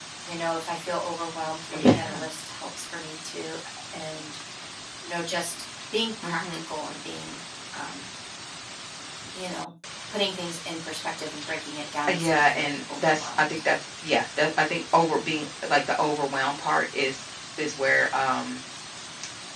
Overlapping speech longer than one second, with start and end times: 12.1-13.5

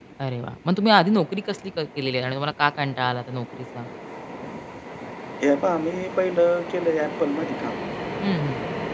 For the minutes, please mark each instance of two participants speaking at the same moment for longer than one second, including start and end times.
none

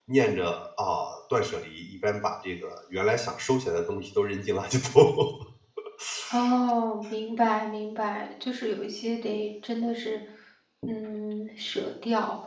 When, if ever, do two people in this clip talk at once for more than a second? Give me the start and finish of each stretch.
none

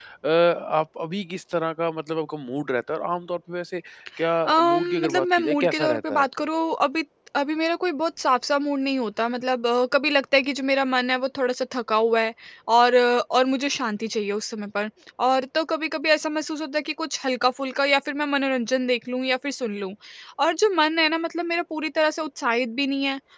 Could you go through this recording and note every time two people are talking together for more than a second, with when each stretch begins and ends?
4.5-6.2

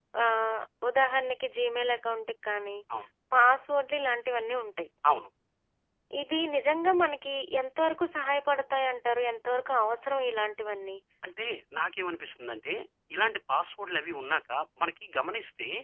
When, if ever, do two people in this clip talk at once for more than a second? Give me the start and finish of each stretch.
none

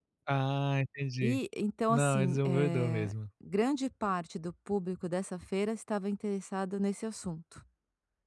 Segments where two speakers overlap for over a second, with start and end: 1.9-3.1

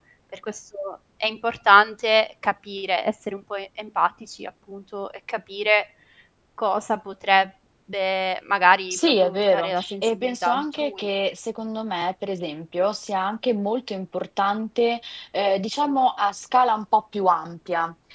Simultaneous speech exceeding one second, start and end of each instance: 8.9-11.1

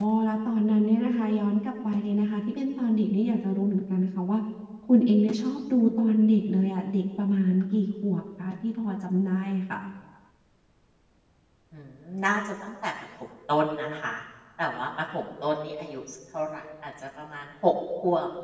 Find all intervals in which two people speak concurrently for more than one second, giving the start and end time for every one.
none

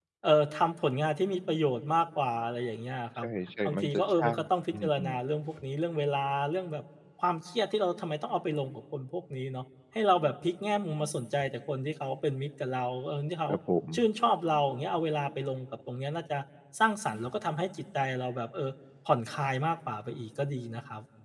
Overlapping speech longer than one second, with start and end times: 3.6-5.1

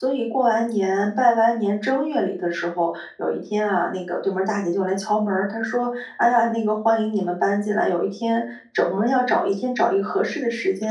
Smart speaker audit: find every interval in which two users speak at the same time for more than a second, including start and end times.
none

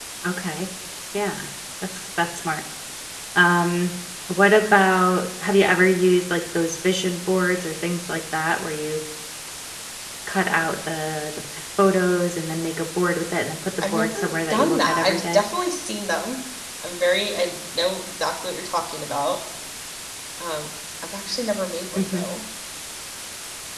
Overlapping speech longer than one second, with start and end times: 13.8-15.4

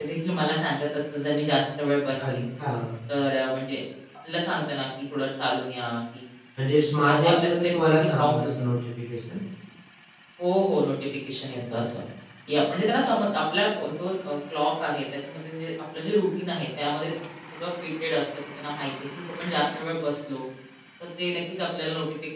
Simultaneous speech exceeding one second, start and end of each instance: 7.0-8.5

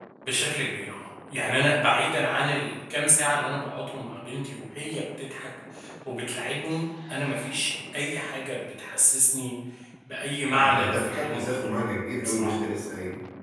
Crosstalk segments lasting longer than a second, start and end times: 10.5-11.7

